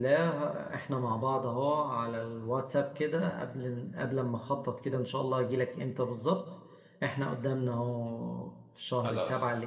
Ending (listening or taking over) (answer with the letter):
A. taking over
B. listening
B